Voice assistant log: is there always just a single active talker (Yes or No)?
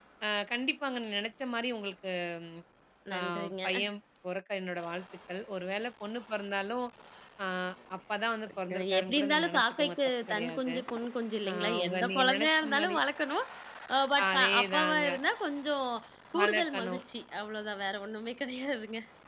No